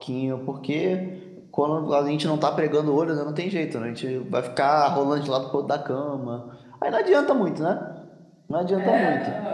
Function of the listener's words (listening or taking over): taking over